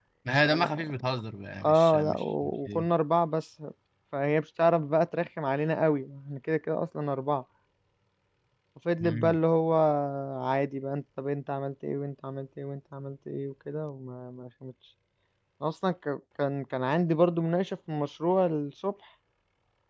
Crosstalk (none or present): present